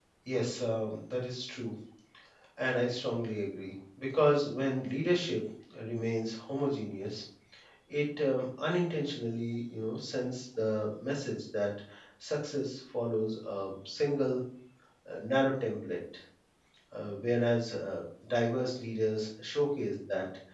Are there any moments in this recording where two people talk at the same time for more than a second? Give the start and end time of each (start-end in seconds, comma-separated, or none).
none